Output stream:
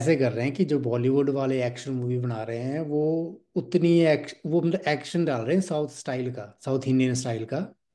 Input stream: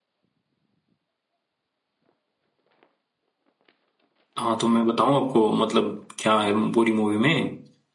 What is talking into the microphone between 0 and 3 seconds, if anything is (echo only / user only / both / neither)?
neither